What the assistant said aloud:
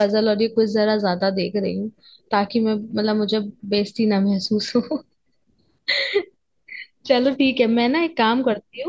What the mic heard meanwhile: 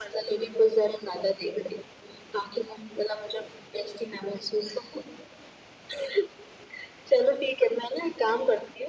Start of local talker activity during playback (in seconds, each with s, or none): none